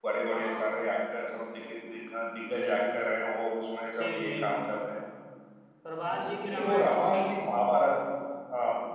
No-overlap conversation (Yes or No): No